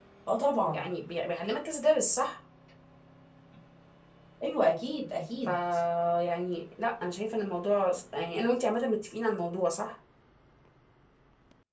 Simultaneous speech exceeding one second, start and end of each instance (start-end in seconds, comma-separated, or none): none